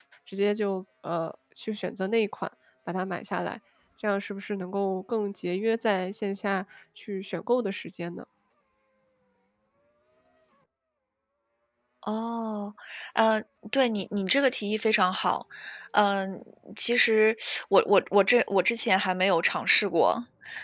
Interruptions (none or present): none